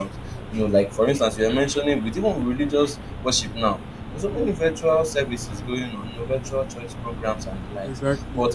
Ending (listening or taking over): listening